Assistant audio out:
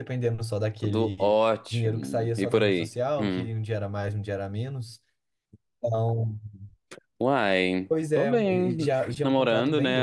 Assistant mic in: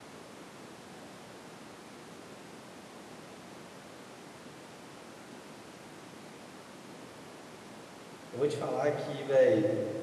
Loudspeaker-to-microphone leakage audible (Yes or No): No